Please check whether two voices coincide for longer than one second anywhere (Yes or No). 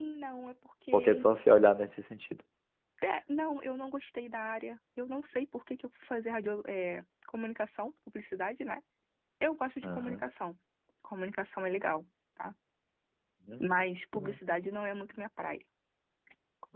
No